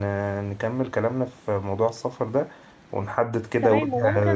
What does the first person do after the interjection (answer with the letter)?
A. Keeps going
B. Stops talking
B